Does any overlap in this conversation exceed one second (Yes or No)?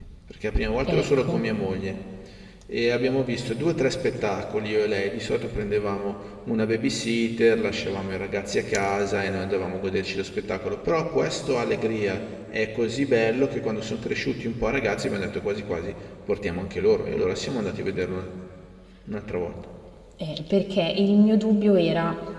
No